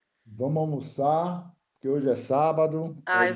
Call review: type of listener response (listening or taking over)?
taking over